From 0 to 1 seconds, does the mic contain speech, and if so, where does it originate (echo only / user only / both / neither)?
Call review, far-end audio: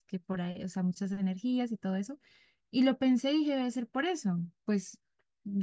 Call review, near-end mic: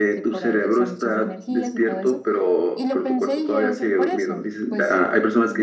both